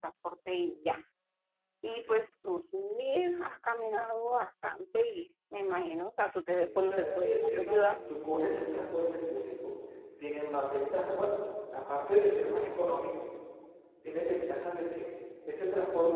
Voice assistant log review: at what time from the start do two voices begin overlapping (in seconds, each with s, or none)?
6.6 s